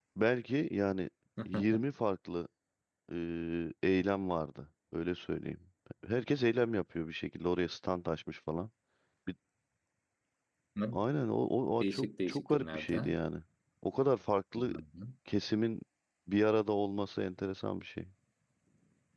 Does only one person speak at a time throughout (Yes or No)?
No